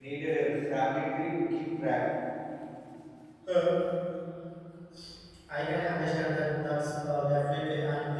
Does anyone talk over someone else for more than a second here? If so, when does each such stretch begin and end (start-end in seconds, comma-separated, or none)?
none